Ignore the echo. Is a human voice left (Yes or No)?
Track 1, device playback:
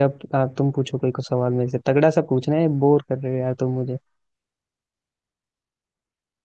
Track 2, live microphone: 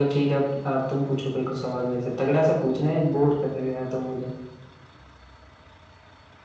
No